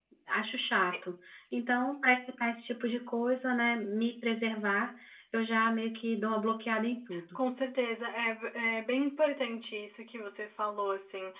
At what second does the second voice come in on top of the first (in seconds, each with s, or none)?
none